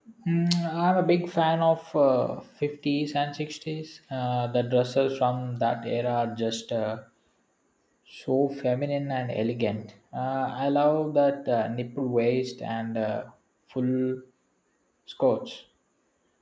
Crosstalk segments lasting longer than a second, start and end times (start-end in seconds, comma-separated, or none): none